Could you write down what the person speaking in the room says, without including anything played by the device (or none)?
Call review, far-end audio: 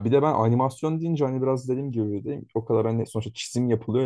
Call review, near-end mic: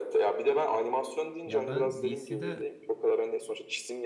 Ya ben DC'de